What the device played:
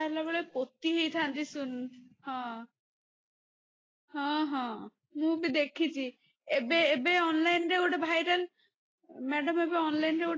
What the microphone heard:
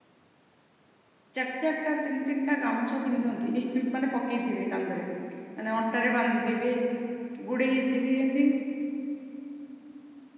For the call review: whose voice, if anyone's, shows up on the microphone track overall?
user only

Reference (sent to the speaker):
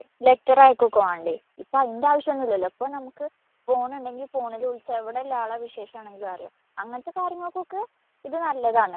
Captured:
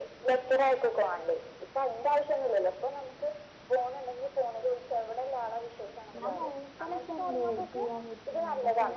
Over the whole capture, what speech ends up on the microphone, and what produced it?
both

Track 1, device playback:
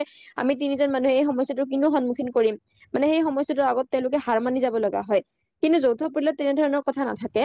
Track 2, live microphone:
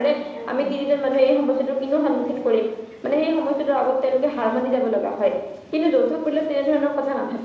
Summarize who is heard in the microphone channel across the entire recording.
both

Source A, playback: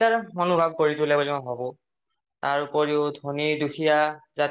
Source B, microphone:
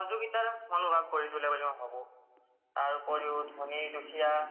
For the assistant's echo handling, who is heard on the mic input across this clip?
echo only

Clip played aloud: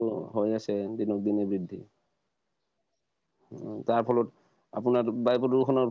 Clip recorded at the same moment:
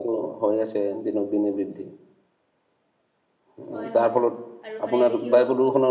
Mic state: both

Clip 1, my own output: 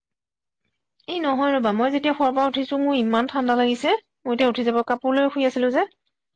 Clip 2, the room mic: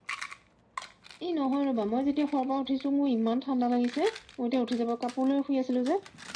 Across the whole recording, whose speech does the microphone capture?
echo only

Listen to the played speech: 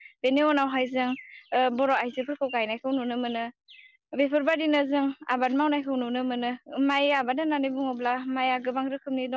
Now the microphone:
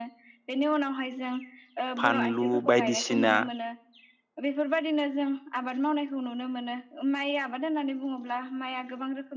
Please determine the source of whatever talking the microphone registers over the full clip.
both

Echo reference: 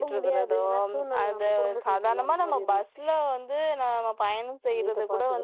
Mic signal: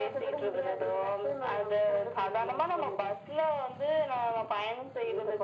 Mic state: echo only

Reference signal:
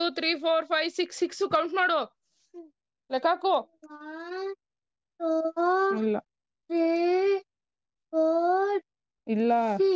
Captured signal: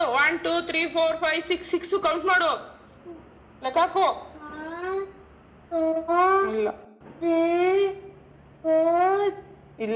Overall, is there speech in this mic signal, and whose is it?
echo only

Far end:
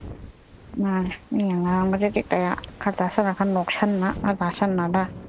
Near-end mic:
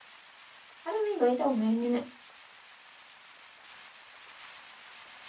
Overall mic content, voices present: user only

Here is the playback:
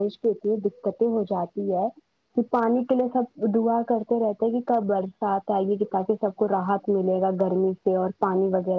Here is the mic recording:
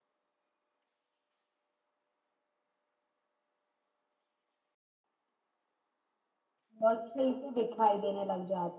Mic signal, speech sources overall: user only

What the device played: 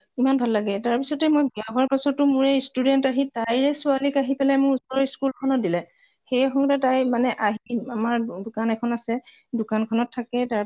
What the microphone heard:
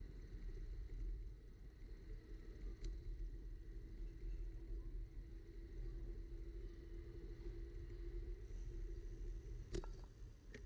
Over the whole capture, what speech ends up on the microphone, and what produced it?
neither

